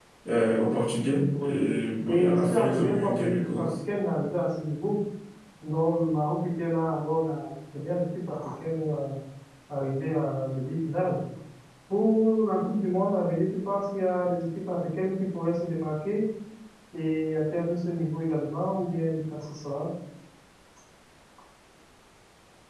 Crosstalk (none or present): present